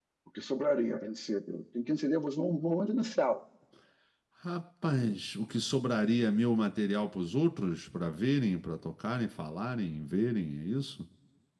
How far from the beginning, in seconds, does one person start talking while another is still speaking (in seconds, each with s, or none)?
none